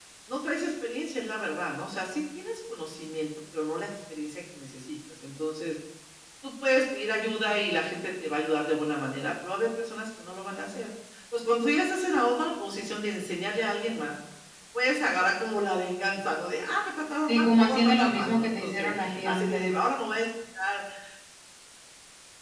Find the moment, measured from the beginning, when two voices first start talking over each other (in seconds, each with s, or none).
17.3 s